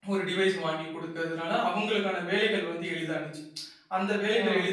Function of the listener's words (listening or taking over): listening